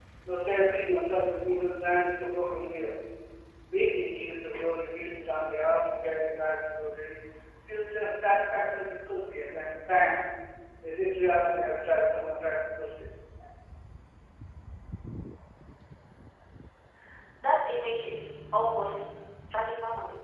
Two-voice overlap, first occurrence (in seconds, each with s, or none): none